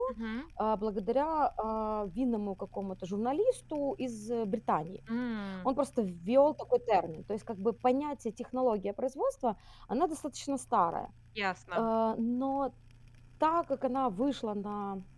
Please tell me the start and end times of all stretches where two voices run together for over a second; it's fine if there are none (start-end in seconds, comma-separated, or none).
none